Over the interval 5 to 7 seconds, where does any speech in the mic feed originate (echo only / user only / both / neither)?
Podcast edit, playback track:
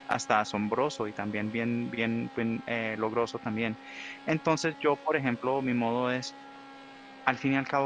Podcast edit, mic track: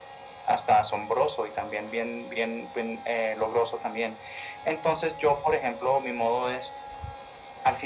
echo only